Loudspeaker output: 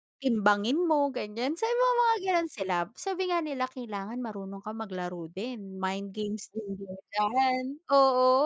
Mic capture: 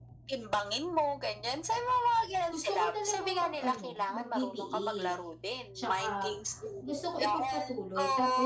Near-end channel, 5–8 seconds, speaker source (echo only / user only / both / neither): both